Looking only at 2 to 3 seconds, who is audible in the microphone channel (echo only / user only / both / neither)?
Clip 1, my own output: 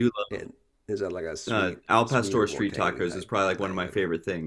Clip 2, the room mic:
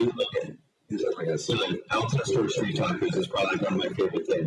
echo only